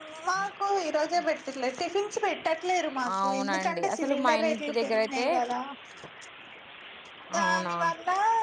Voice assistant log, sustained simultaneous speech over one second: present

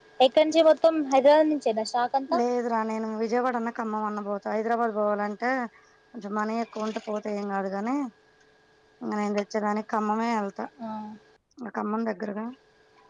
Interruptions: none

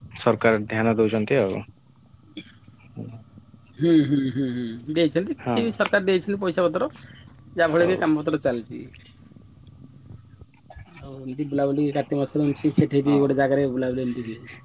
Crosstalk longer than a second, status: none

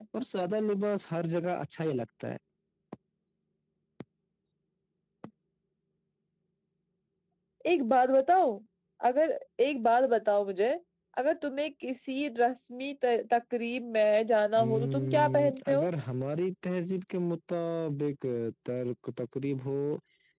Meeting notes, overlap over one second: present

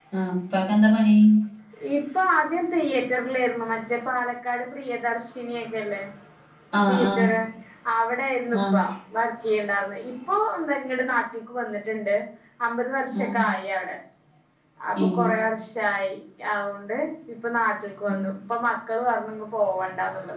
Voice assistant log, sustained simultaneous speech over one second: none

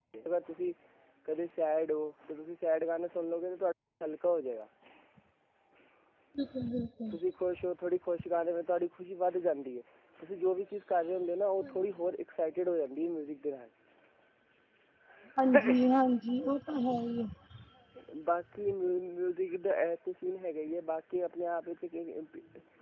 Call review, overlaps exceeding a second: none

